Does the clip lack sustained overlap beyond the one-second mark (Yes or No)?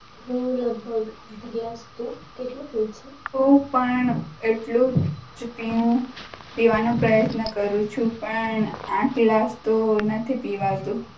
Yes